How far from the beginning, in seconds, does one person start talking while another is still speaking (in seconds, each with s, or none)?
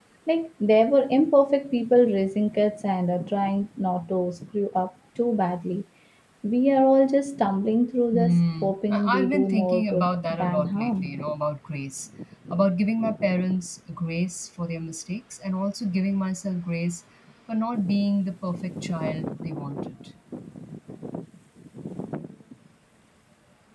8.1 s